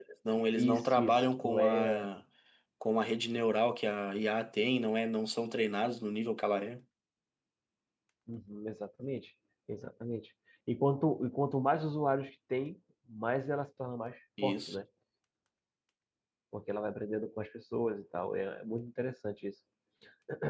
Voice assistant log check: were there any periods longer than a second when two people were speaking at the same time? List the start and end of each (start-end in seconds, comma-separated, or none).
0.6-2.1